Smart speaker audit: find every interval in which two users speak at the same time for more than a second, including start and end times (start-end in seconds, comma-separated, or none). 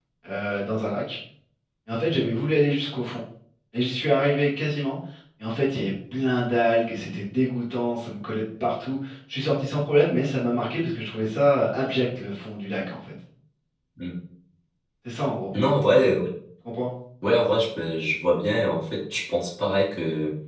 none